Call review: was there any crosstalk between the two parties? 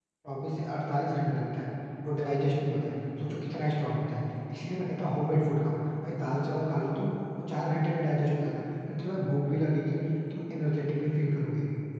No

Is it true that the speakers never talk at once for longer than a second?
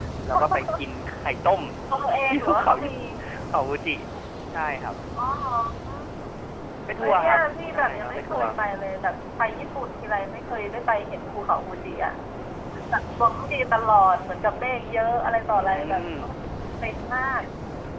No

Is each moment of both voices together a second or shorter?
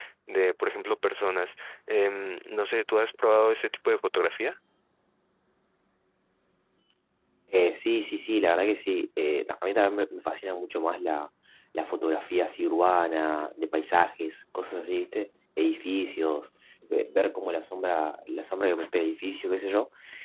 Yes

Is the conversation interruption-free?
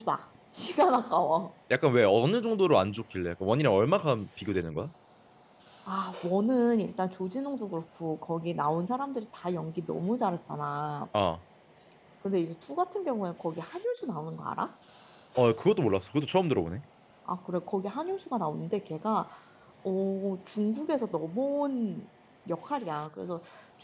Yes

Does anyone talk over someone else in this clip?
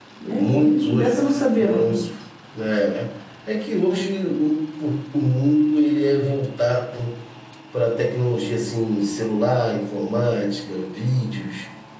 Yes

